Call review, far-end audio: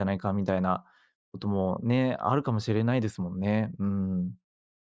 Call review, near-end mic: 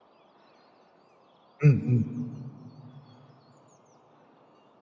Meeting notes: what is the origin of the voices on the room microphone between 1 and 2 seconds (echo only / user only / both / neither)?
user only